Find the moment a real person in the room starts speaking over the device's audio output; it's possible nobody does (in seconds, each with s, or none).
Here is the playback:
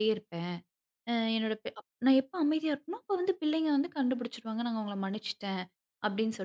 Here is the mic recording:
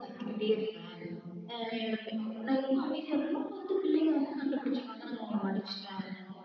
none